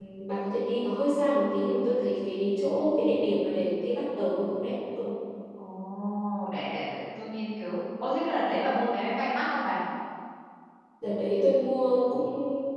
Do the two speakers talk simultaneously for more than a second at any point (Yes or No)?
No